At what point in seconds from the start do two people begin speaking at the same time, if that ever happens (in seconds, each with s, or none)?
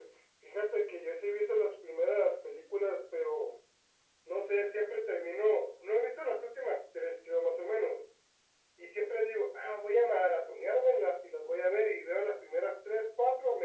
none